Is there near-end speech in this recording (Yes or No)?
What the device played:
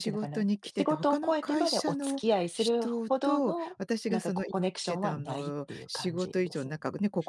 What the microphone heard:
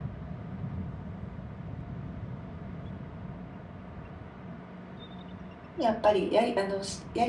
Yes